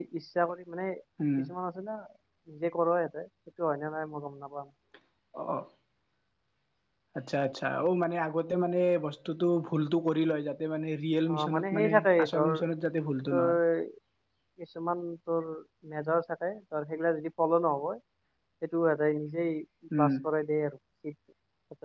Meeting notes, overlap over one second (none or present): present